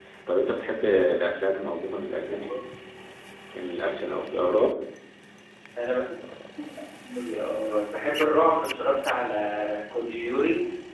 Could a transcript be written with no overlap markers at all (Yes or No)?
Yes